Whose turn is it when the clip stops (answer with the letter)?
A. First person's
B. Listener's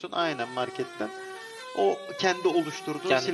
B